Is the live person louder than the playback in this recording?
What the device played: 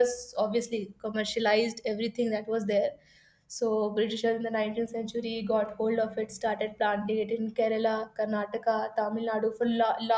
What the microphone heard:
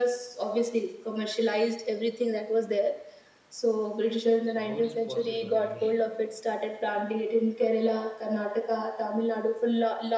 No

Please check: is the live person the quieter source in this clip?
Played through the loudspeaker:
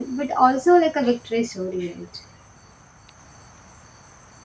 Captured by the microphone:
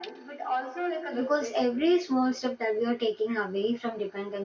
No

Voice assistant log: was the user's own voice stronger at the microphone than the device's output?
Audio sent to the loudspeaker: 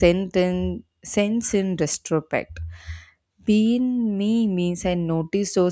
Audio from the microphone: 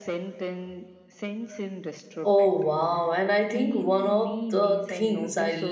Yes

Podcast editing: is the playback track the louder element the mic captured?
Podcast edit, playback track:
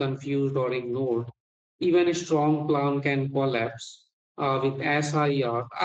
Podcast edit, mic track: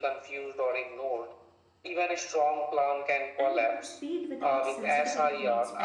Yes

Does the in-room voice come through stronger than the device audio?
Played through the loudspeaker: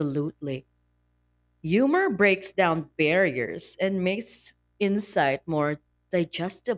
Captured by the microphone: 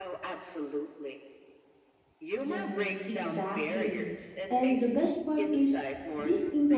Yes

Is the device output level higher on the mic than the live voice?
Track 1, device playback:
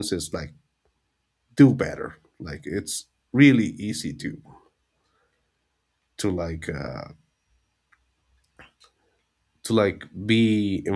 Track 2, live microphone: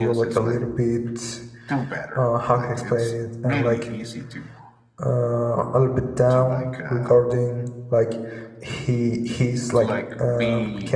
No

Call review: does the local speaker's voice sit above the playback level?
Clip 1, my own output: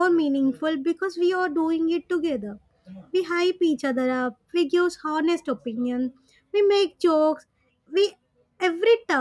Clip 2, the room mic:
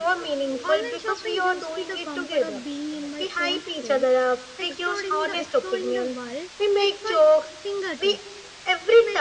No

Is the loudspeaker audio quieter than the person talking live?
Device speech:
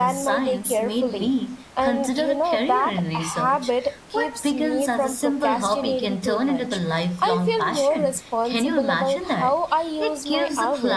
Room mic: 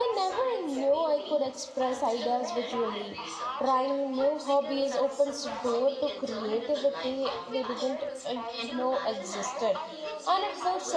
Yes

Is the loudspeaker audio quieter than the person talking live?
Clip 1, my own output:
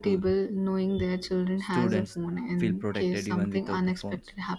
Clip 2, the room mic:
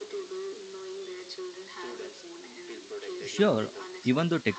Yes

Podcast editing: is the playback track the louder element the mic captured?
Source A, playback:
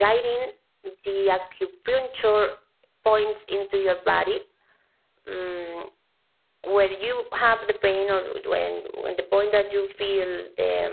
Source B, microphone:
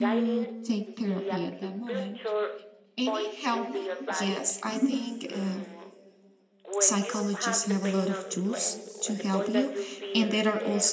No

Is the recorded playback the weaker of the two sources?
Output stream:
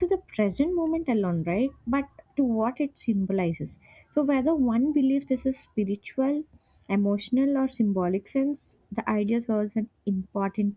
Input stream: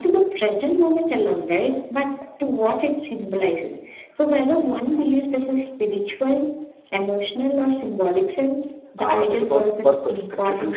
No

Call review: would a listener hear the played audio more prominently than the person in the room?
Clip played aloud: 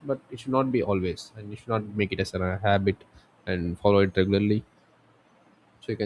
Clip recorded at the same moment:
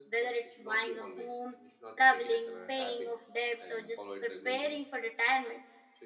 No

